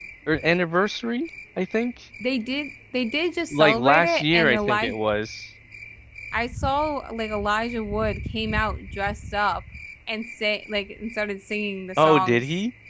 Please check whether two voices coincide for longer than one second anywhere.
Yes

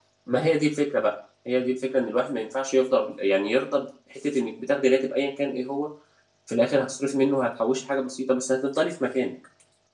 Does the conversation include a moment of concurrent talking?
No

